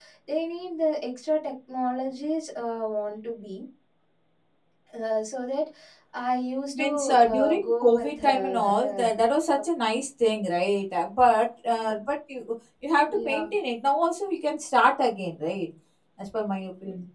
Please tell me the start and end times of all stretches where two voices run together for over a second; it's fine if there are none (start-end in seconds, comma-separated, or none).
6.8-9.1